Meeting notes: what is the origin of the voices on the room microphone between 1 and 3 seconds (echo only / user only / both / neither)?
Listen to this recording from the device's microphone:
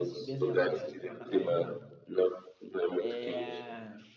both